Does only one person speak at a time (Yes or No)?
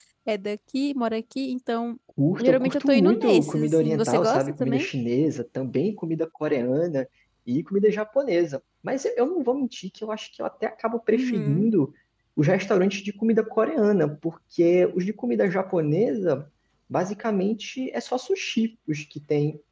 No